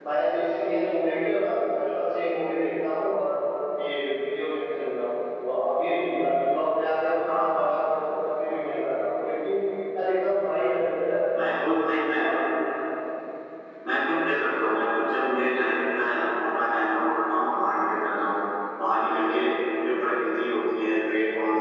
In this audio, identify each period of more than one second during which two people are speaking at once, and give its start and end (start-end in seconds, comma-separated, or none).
none